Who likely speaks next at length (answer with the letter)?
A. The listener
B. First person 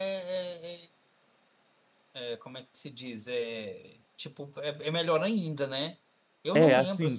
A